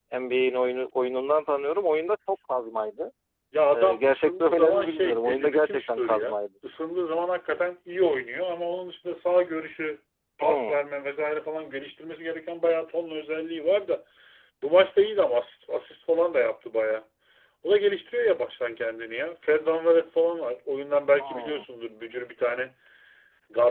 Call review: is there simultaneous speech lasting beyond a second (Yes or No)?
Yes